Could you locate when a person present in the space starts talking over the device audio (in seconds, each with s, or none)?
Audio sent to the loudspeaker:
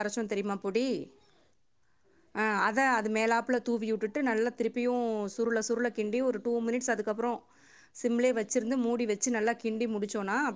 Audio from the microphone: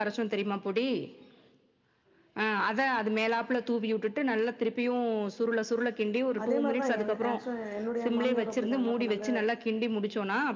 6.4 s